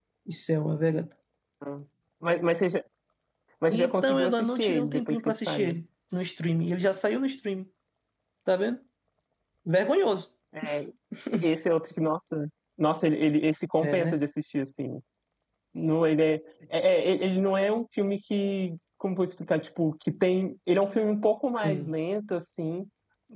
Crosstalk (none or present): present